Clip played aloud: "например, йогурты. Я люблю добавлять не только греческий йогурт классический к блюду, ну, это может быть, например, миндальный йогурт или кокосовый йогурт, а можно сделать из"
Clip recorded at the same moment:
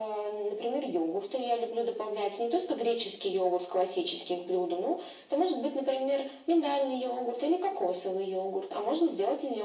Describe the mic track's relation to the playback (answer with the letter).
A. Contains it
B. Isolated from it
A